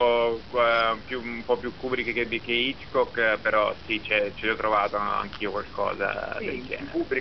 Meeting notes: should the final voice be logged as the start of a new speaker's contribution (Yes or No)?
Yes